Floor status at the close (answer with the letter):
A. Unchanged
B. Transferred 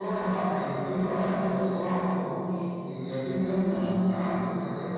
A